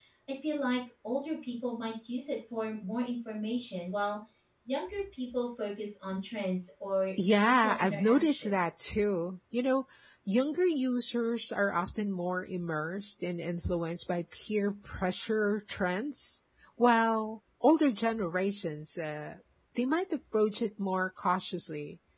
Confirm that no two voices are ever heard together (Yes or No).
No